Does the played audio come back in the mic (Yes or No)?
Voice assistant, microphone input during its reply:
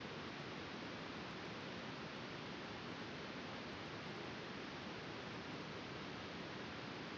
No